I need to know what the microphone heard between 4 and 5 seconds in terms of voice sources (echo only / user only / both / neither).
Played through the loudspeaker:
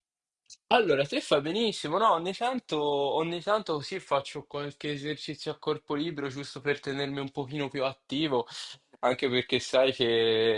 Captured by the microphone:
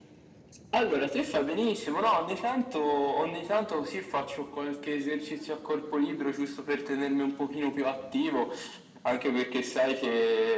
echo only